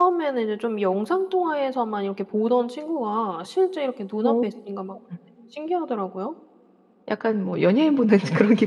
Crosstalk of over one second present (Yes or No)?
No